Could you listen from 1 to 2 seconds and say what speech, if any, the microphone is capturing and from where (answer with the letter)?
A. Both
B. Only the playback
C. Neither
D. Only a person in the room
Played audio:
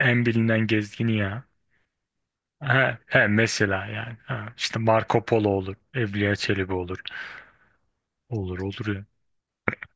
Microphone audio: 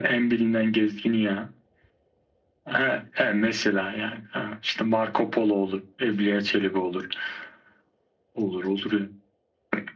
B